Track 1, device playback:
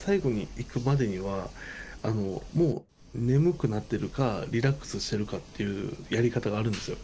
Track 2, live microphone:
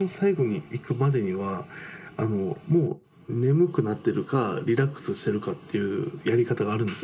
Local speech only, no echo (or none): none